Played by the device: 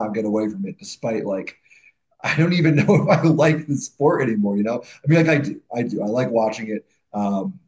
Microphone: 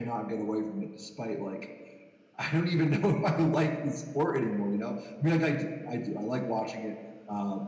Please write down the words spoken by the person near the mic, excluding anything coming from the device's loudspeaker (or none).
none